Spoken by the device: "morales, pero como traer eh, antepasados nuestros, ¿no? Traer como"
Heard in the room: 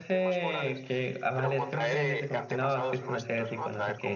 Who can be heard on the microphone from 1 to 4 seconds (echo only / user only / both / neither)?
both